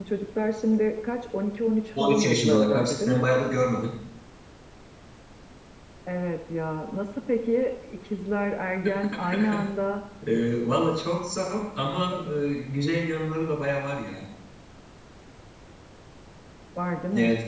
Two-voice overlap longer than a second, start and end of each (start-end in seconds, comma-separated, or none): 2.0-3.2